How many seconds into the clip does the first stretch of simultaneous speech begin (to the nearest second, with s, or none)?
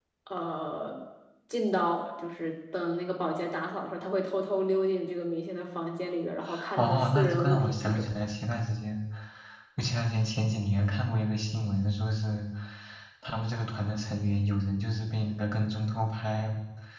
7 s